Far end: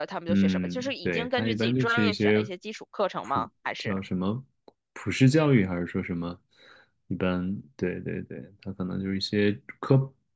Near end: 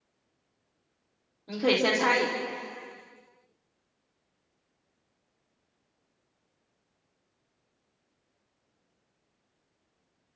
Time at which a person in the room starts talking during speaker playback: 1.4 s

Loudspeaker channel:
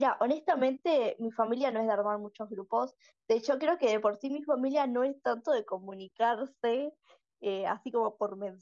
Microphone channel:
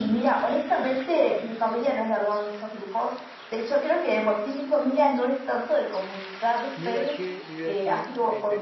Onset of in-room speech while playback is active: 6.7 s

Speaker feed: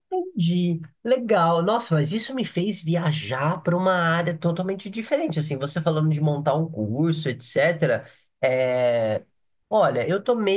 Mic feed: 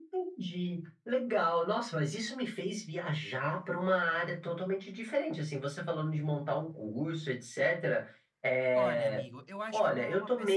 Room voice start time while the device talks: 8.7 s

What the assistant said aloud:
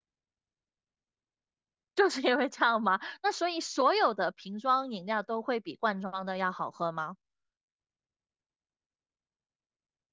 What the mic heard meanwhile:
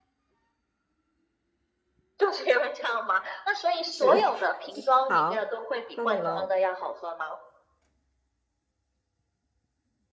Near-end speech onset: 3.9 s

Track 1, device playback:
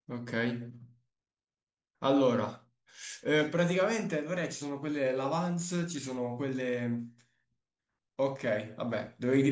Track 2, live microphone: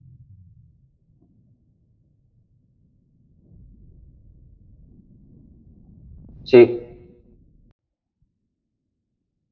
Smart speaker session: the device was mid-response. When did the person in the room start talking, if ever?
6.4 s

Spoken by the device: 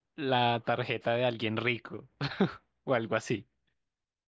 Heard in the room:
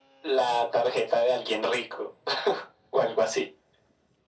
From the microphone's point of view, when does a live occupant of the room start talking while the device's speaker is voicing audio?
none

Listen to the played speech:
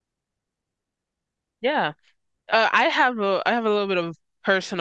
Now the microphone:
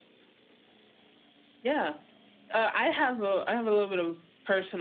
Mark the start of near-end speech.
none

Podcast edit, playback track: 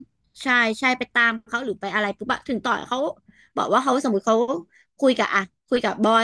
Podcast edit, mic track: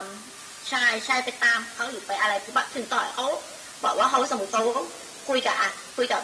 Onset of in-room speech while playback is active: none

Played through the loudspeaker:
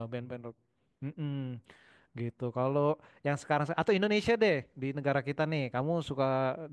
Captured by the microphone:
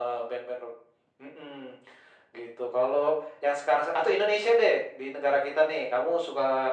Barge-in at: none

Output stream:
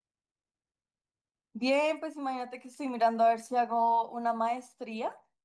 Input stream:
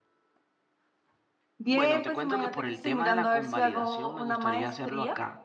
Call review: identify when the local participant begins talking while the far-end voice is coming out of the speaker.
1.7 s

